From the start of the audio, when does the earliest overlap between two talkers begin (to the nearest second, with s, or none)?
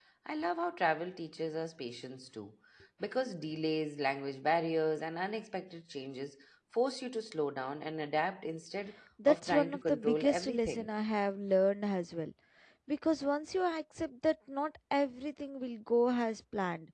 9 s